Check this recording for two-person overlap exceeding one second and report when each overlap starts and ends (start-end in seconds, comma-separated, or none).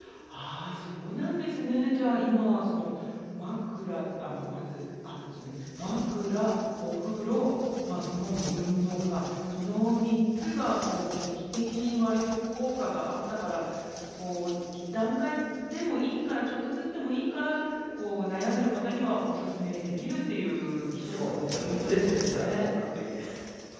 21.1-22.7